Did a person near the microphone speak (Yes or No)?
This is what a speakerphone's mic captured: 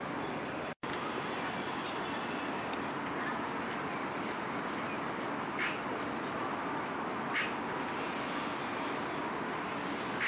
No